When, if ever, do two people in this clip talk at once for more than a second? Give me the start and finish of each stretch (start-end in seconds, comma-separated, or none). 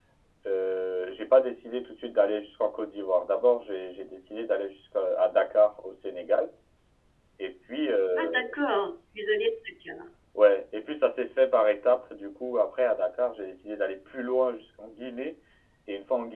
none